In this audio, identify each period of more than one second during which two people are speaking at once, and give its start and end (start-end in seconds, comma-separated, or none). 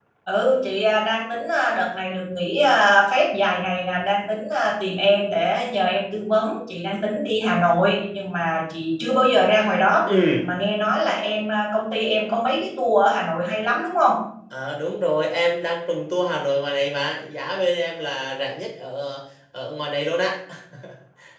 none